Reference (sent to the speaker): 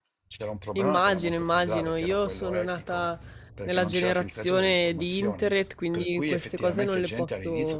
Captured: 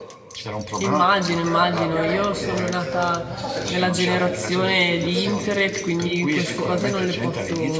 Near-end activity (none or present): present